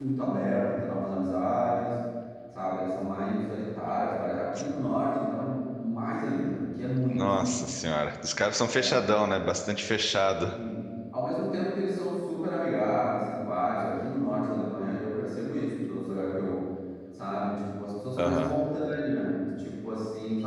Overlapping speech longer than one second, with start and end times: none

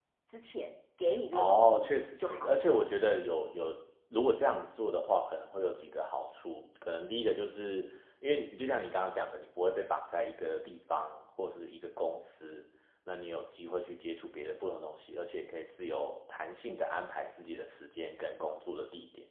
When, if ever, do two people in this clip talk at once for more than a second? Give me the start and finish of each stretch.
1.3-2.7

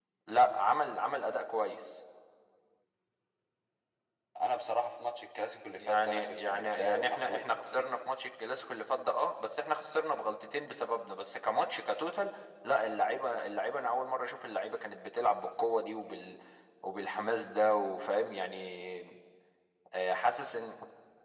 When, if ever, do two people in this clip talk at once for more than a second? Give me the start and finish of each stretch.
5.8-7.9

